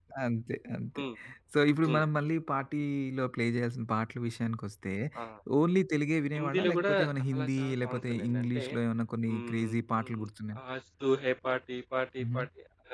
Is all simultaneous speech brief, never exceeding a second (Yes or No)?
No